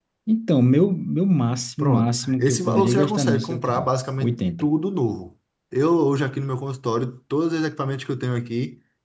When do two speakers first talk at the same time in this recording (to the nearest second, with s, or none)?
2 s